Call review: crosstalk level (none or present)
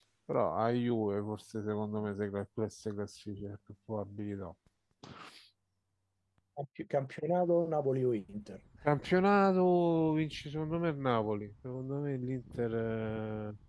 none